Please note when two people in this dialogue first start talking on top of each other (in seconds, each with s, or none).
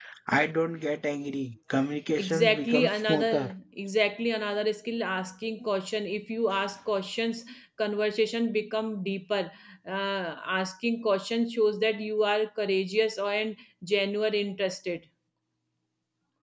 2.2 s